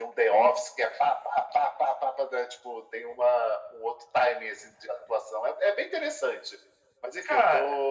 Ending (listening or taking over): listening